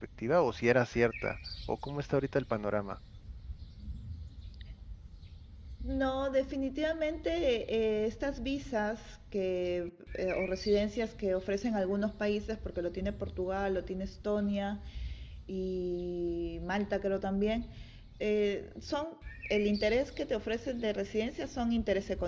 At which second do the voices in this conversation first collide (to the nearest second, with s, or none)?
none